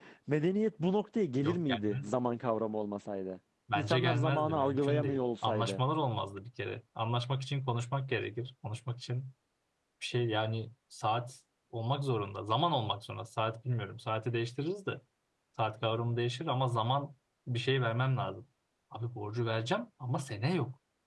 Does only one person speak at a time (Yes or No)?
No